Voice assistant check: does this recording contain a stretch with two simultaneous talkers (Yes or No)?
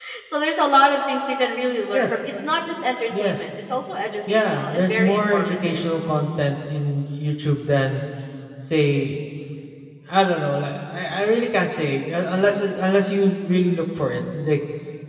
Yes